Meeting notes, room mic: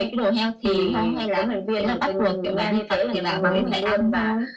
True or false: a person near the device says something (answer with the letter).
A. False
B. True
B